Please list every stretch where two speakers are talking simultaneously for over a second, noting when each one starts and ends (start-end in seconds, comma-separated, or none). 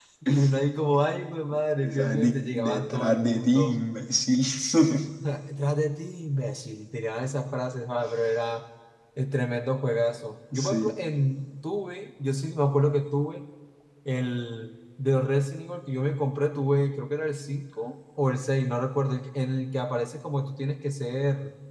1.8-3.8